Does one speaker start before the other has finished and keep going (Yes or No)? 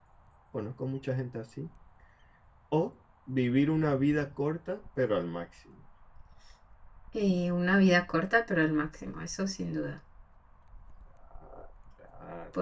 No